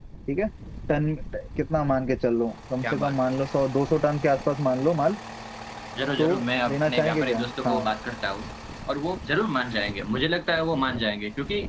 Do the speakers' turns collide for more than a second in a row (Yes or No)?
Yes